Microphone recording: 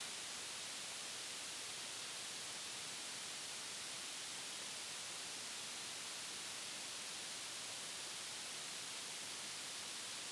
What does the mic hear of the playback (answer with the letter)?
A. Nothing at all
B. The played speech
A